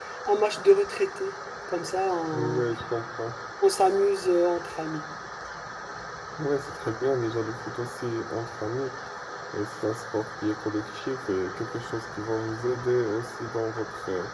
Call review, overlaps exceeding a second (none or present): none